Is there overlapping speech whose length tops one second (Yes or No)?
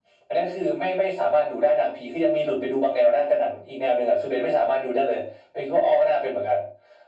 No